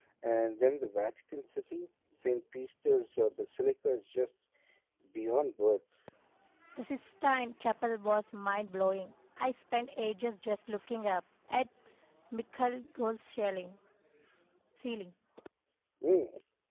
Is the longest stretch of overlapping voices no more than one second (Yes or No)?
Yes